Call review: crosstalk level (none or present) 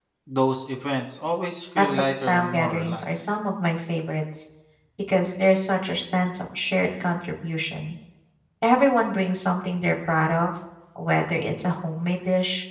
present